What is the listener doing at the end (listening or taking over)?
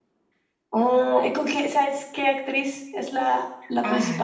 taking over